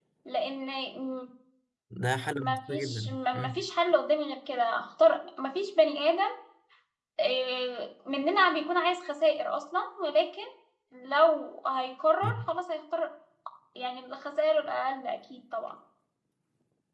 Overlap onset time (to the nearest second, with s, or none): 2 s